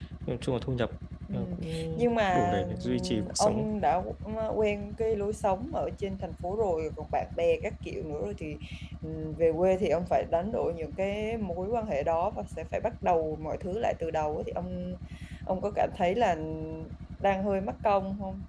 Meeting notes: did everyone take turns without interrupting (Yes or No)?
No